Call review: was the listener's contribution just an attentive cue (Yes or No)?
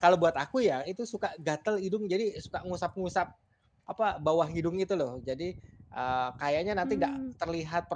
Yes